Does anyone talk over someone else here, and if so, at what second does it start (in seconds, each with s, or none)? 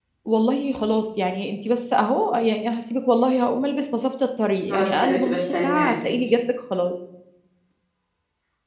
4.7 s